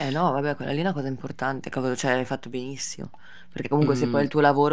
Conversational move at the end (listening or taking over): listening